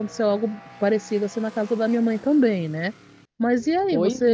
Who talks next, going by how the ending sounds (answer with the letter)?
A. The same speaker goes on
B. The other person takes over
A